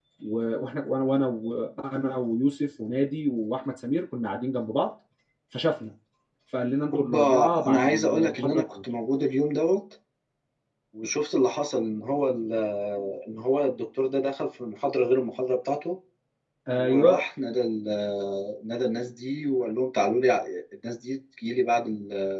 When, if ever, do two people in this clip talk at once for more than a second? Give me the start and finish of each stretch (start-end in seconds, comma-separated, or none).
6.9-8.6